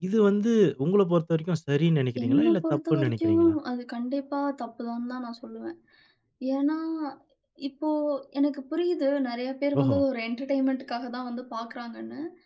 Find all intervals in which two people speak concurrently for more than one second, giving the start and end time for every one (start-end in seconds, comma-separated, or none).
2.2-3.5